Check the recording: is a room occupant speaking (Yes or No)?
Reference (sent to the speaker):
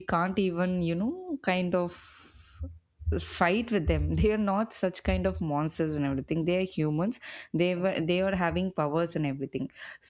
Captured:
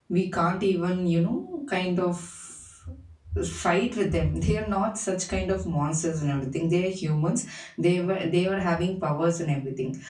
No